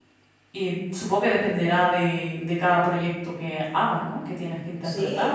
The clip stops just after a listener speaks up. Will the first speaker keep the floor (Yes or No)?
No